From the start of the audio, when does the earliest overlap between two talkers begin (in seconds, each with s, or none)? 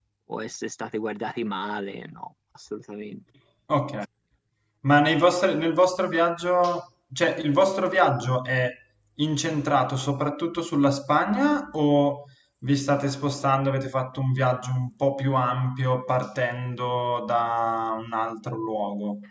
none